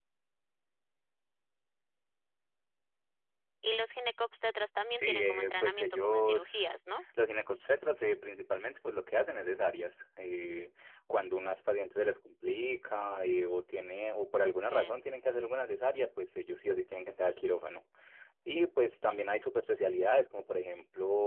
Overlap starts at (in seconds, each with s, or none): 5.0 s